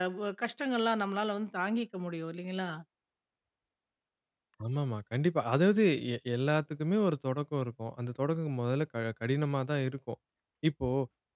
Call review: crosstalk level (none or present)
none